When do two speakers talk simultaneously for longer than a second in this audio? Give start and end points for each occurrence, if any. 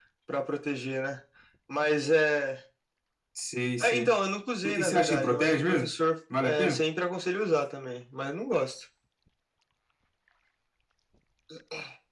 4.6-5.9

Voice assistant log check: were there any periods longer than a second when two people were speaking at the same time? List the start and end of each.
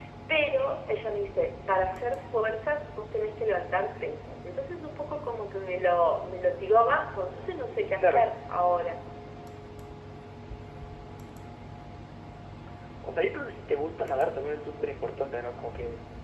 none

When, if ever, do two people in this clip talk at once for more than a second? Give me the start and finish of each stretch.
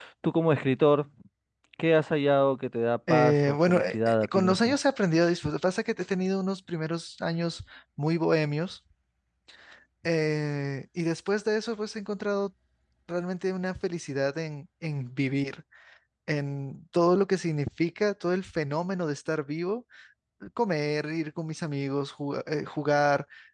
3.1-4.8

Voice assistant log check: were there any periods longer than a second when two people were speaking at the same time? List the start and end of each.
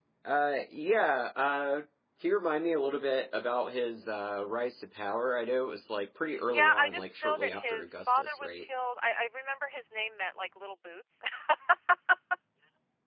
6.5-8.7

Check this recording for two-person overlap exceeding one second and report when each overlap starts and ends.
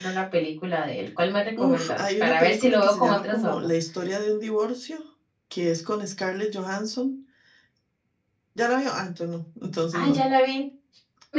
1.6-3.6

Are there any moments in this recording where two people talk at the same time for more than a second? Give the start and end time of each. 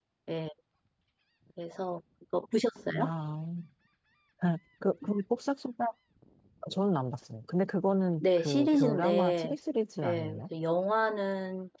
8.2-9.6

